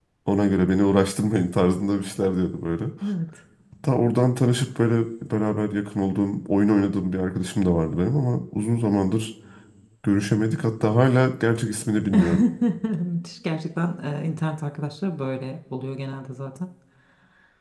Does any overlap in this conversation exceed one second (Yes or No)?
No